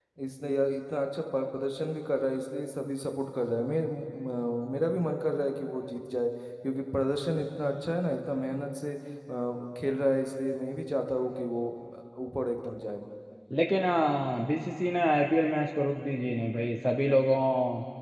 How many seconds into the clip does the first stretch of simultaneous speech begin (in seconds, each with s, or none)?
none